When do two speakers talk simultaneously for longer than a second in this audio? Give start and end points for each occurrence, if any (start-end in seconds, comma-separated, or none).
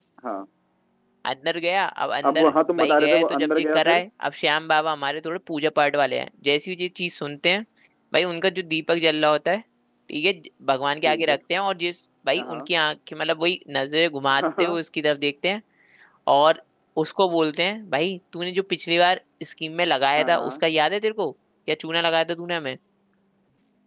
2.3-4.0